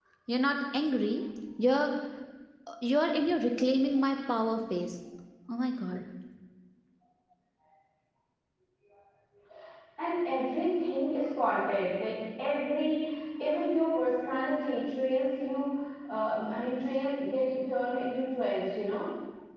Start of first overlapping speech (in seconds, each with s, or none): none